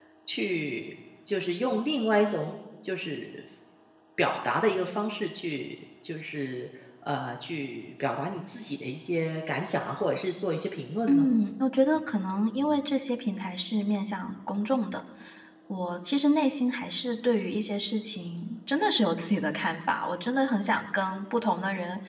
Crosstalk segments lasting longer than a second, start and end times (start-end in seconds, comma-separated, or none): none